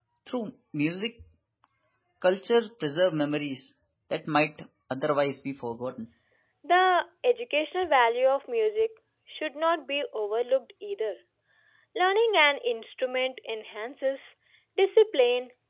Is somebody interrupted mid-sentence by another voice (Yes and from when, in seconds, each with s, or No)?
No